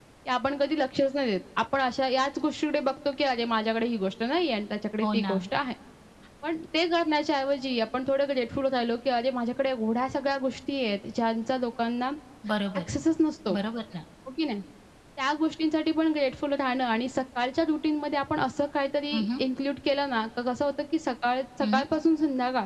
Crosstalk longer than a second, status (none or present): none